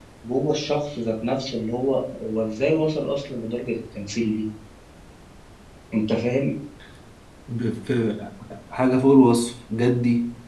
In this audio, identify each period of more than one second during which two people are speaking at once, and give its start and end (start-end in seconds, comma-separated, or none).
none